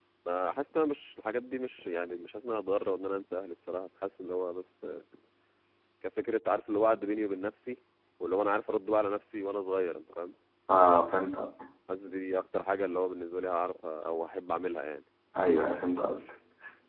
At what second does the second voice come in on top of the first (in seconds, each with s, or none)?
none